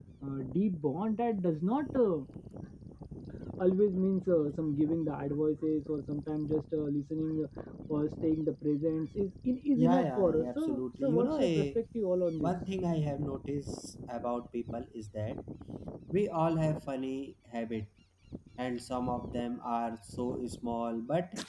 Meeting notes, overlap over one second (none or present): present